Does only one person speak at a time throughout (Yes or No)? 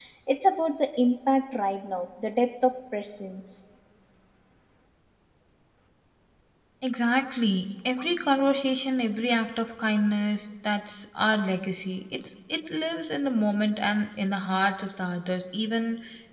Yes